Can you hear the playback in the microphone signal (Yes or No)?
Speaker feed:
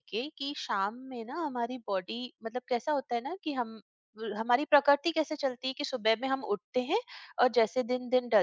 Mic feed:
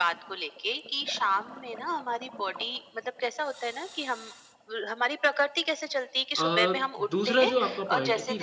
Yes